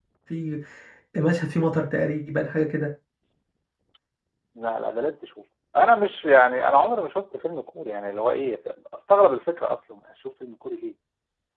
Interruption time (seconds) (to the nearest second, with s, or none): none